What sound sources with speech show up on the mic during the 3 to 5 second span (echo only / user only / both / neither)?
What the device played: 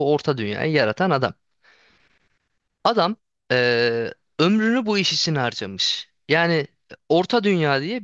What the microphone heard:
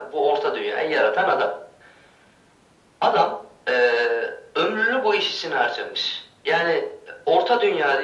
echo only